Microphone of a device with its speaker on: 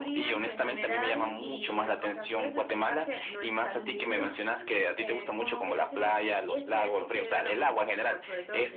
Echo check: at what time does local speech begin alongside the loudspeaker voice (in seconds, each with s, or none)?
none